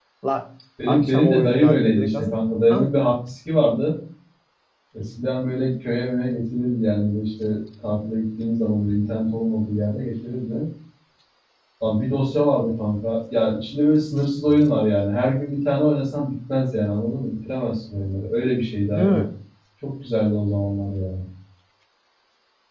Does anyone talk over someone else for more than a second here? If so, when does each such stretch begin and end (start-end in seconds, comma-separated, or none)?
0.9-2.4